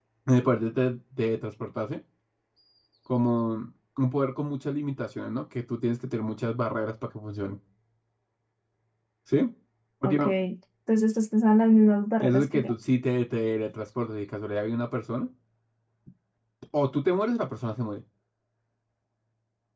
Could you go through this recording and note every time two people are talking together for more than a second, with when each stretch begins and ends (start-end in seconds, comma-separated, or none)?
none